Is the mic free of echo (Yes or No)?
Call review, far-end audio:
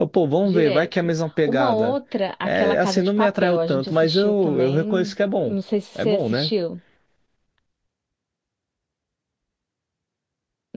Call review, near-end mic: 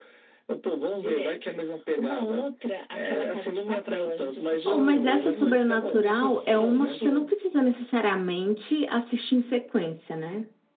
No